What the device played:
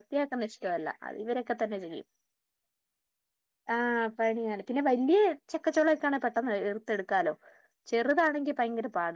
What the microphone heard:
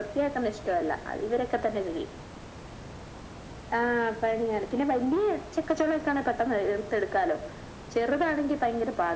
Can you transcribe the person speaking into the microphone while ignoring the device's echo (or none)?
none